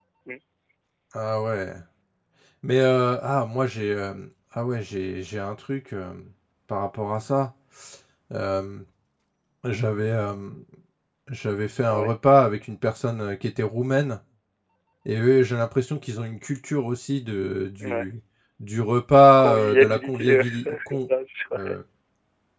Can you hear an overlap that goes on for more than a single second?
Yes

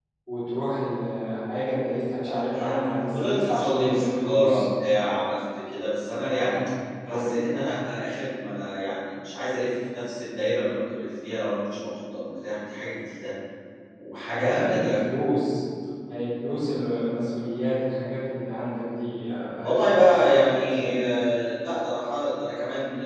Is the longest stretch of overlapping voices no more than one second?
No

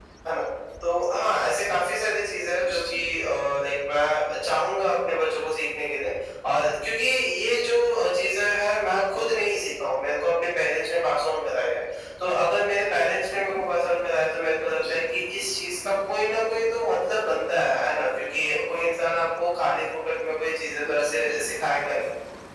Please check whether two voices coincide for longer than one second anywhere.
No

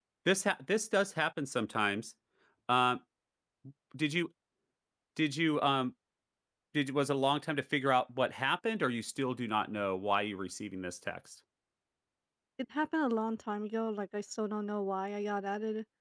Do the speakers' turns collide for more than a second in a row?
No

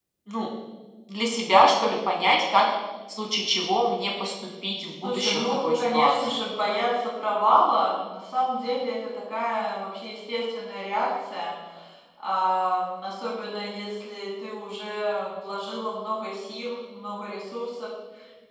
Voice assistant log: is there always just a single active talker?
No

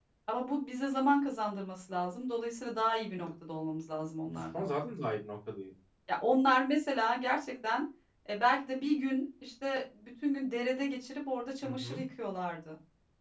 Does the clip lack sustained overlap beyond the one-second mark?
Yes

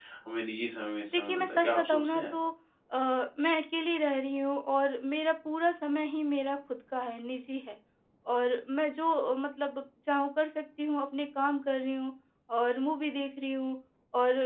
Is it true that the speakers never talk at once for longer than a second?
No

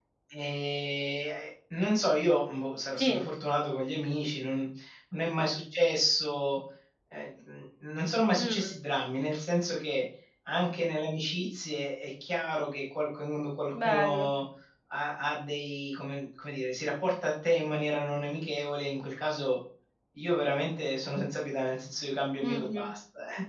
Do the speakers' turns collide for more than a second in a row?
No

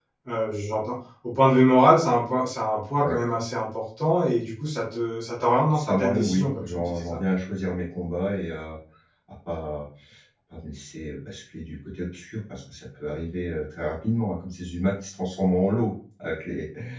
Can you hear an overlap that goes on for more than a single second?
Yes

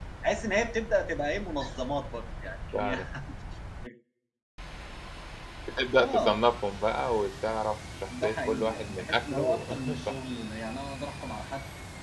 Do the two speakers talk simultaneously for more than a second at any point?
Yes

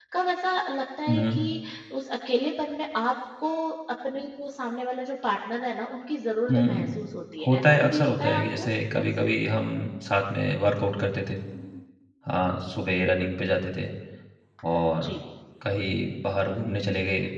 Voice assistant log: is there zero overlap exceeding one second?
No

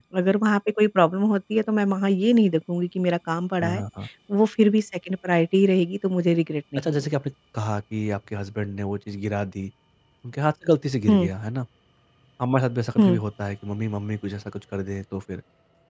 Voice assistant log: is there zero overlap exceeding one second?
Yes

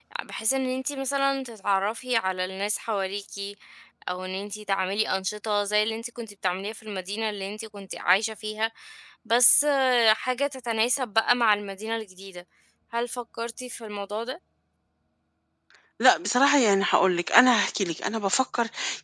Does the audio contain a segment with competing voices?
No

